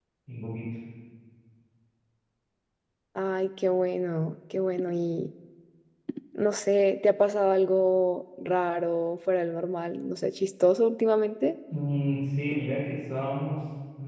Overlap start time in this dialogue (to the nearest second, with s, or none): none